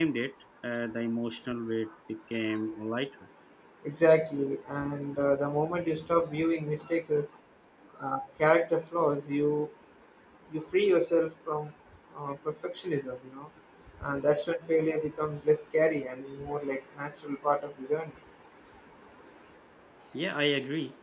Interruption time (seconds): none

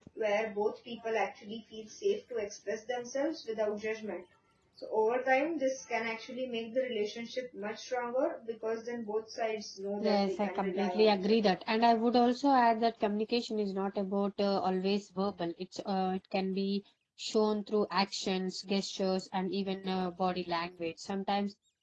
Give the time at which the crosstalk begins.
10.0 s

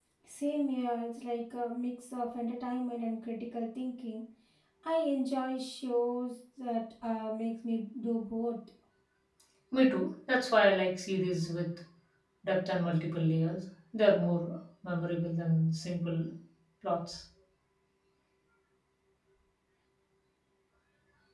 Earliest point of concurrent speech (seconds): none

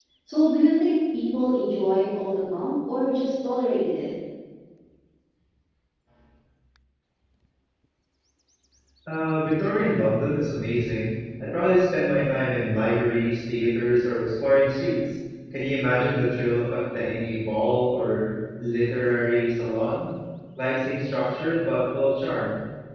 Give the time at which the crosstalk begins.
none

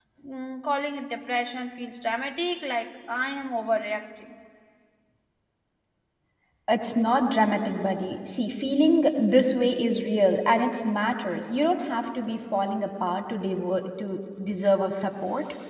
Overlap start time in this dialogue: none

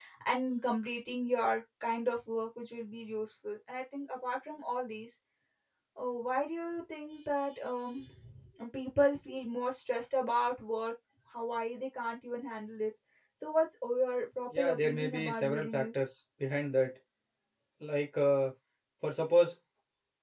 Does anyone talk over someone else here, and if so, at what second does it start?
14.5 s

